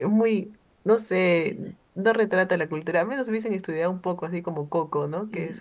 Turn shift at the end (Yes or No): Yes